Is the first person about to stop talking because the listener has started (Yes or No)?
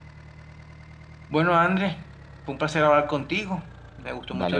No